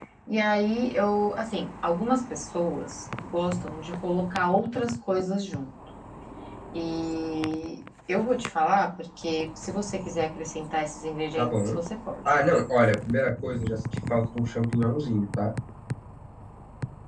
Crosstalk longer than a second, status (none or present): none